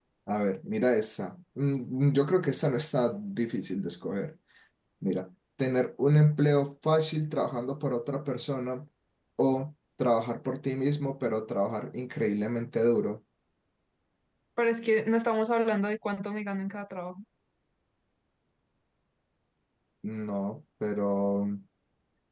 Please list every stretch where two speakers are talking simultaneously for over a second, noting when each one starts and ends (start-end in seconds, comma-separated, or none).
none